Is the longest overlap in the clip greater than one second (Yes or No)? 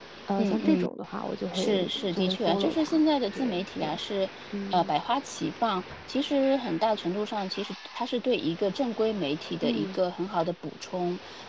Yes